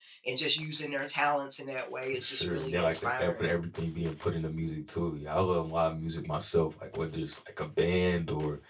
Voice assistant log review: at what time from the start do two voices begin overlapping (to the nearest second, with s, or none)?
2 s